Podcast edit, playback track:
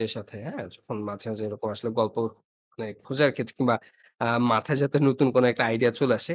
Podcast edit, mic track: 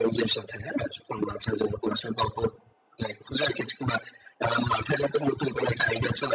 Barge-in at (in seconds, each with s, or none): none